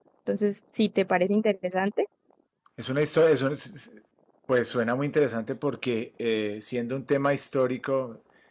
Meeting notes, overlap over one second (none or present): none